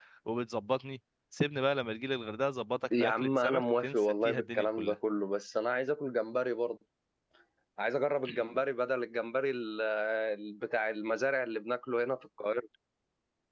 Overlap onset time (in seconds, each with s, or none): 2.9 s